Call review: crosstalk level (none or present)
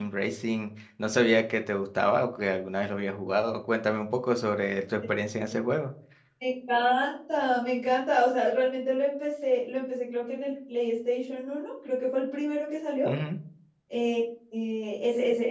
none